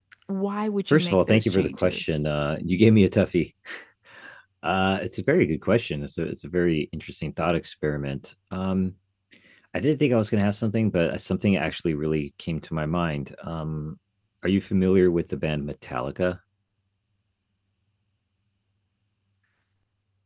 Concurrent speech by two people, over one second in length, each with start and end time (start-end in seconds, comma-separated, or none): 0.9-2.1